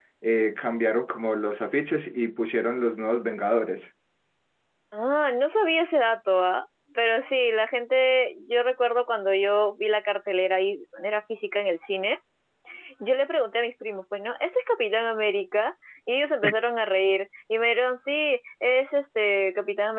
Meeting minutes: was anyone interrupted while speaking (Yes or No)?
No